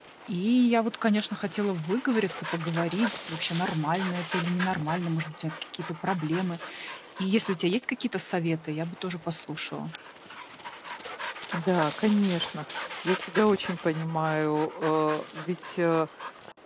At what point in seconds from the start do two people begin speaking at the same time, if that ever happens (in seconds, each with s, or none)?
none